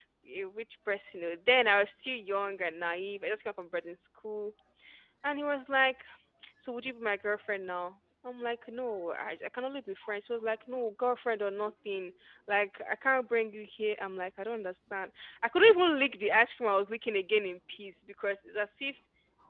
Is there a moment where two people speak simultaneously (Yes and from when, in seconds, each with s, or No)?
No